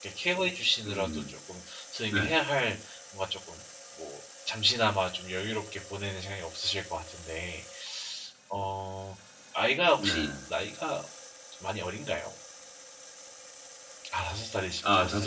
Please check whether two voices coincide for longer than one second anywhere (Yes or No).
No